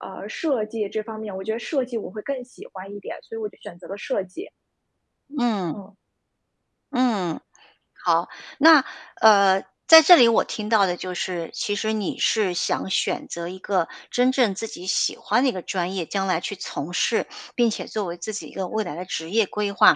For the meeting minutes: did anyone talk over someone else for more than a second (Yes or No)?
No